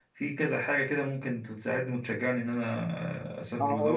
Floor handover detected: Yes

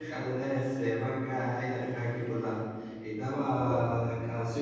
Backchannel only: Yes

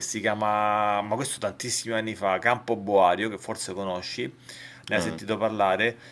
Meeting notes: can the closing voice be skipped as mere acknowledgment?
Yes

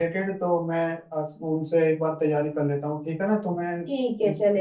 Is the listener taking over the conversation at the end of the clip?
Yes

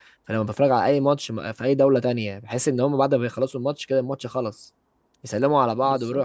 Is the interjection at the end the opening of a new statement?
No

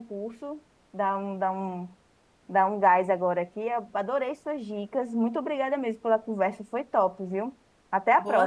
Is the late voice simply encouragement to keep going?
No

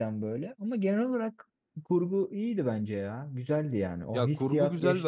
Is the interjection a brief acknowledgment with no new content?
No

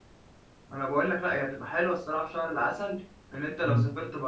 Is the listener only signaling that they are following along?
No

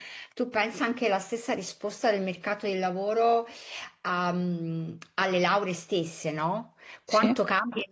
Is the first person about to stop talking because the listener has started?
No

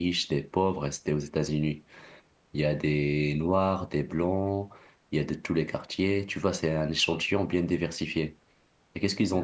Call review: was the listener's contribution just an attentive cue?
Yes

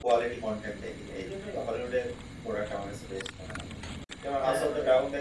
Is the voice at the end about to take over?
No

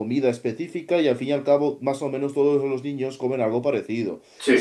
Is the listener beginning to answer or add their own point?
No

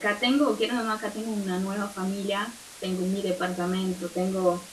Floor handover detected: No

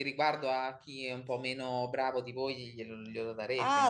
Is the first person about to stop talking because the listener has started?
Yes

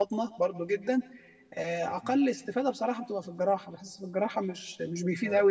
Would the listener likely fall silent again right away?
Yes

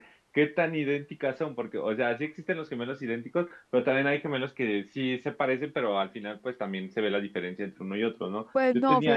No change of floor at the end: No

